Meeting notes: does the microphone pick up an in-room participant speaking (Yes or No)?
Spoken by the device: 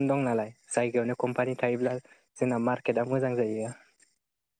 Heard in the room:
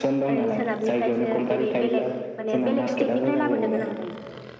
Yes